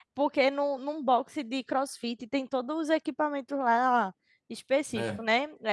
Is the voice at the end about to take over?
No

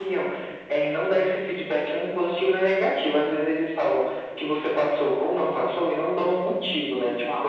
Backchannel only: Yes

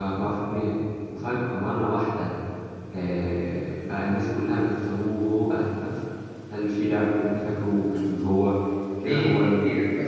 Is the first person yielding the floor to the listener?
Yes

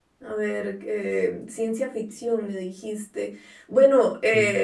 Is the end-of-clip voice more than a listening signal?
No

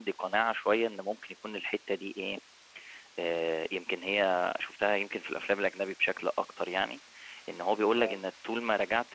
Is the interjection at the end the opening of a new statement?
No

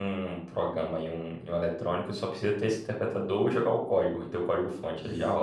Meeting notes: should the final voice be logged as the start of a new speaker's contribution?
Yes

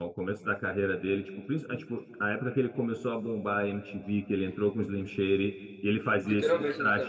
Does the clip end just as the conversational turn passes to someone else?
No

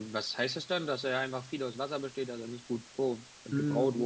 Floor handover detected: Yes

